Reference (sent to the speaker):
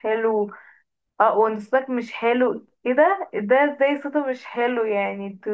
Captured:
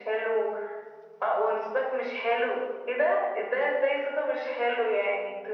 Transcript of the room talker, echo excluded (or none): none